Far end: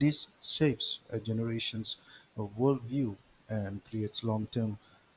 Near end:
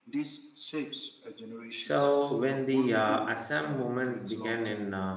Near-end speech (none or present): present